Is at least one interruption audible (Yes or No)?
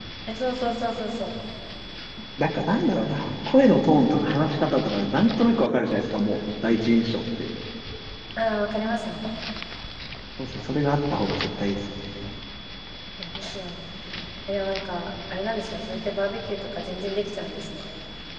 No